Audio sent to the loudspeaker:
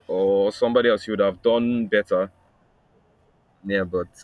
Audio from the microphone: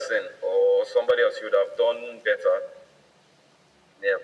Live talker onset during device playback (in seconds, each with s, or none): none